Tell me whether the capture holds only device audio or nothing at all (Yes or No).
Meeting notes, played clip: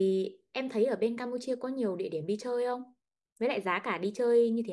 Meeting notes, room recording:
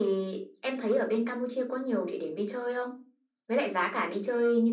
Yes